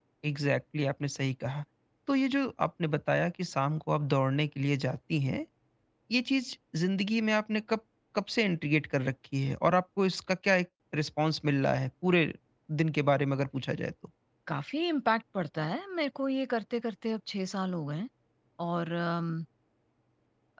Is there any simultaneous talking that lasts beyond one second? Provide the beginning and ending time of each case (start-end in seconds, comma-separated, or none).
none